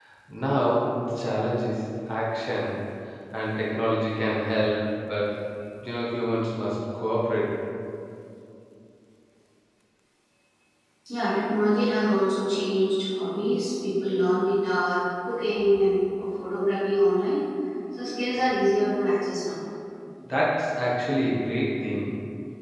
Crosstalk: none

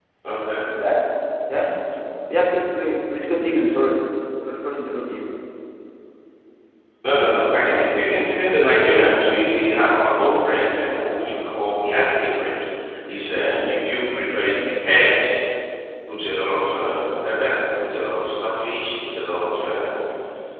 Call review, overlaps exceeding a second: none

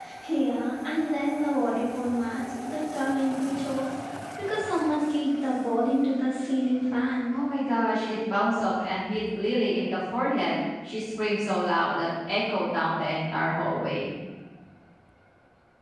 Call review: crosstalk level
none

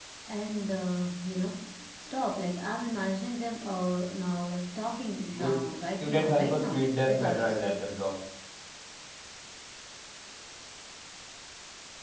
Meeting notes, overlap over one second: present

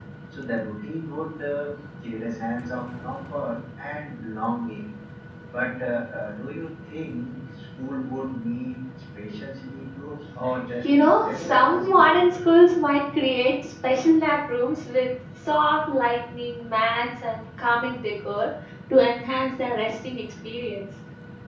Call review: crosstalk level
present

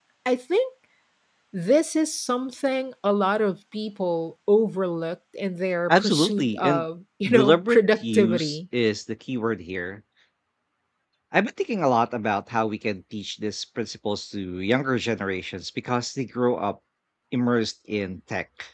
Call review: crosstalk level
present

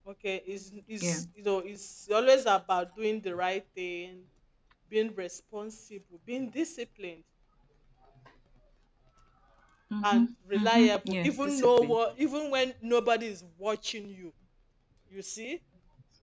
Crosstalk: present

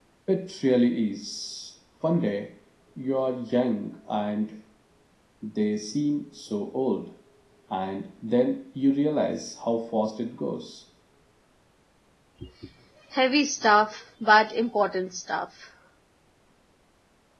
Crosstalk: none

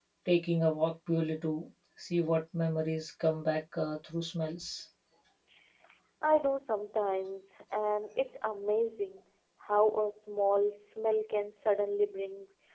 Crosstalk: none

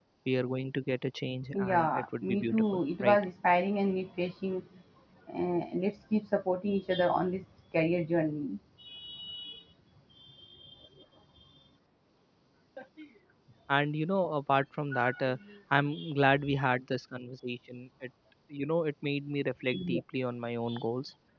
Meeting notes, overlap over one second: present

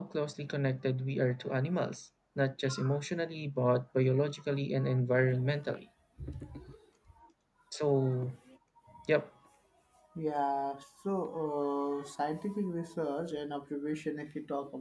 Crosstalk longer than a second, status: none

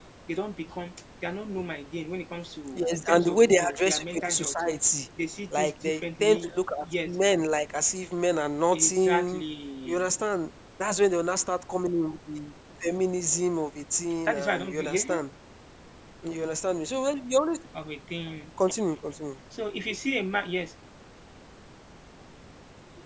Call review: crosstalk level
present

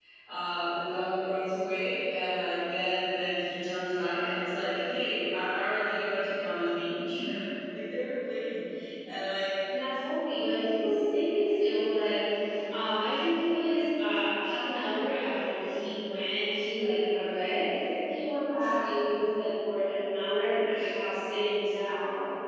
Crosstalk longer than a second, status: none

